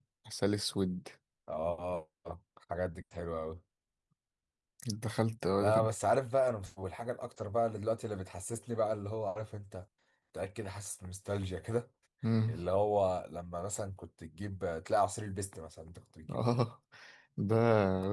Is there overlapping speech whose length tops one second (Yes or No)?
No